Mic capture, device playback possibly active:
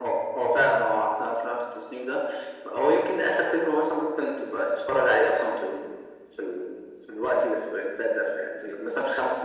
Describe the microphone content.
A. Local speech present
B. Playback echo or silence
B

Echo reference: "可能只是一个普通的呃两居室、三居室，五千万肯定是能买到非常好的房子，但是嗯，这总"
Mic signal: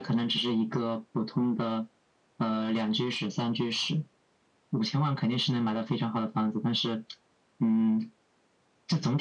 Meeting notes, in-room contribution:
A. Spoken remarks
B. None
B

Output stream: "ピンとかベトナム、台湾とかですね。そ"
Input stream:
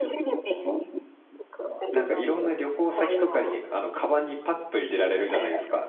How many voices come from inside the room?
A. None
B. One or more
B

